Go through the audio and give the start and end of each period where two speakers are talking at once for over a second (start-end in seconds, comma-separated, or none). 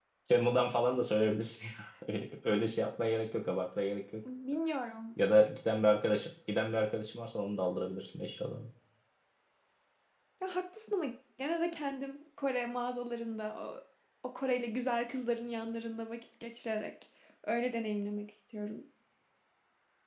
none